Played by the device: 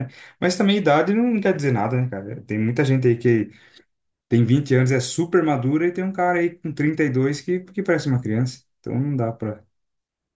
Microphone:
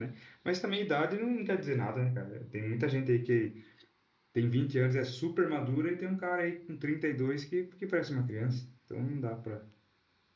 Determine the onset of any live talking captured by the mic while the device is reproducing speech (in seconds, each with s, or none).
none